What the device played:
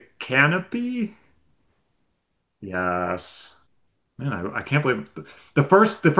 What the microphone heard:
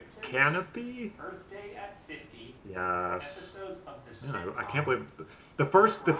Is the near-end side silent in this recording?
No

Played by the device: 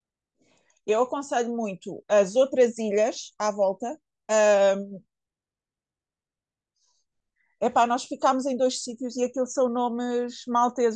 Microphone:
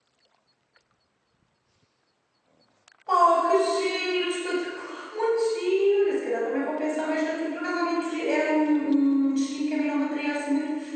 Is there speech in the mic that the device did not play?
Yes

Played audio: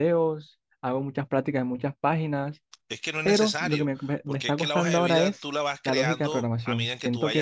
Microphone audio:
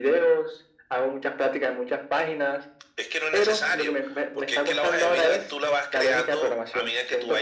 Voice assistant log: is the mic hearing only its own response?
Yes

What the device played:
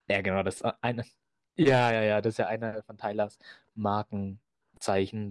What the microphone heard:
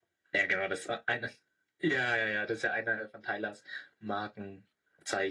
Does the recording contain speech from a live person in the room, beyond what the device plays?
No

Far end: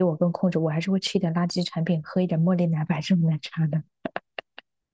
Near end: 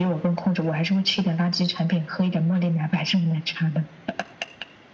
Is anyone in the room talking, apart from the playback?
No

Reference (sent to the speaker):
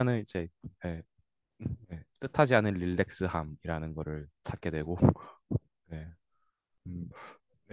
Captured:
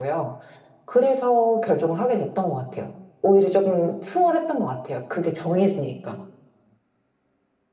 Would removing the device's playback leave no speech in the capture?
No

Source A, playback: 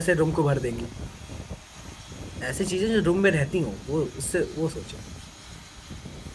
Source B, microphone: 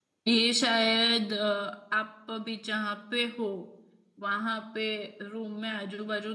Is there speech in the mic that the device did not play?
Yes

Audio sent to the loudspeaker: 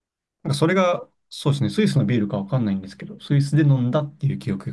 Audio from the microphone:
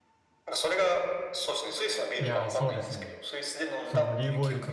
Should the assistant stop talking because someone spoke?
Yes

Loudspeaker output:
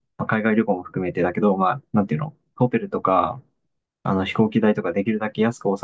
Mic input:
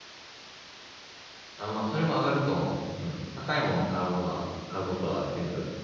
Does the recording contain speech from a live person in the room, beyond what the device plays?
Yes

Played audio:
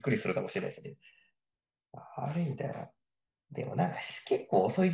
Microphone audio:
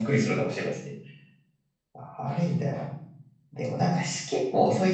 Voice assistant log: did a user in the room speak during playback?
No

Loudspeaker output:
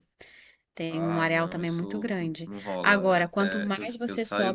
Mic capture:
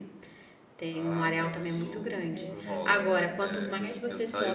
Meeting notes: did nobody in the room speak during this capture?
No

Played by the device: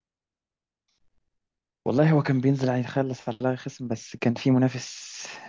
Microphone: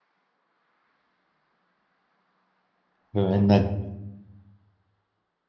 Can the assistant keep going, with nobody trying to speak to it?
No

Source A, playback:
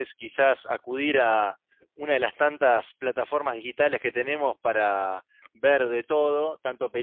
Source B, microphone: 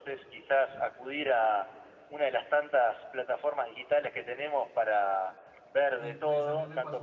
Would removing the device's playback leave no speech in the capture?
No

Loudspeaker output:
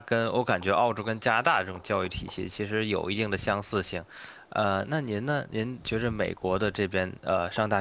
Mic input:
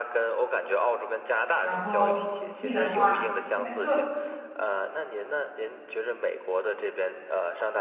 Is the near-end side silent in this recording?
No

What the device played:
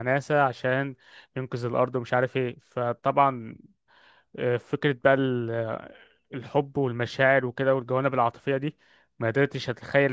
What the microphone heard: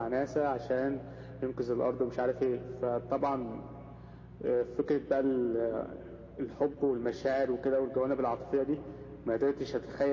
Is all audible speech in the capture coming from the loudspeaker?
Yes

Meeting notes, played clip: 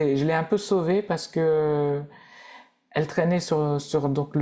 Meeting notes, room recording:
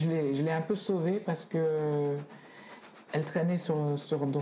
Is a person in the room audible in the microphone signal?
No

